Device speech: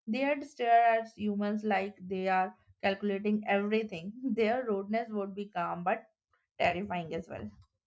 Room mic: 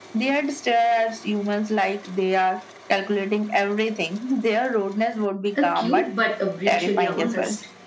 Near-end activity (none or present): present